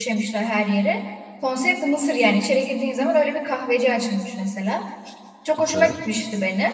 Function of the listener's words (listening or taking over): listening